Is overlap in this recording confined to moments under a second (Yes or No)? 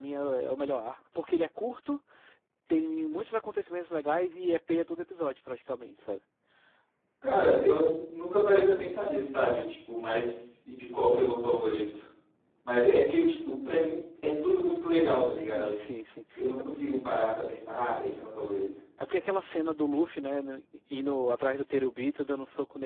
Yes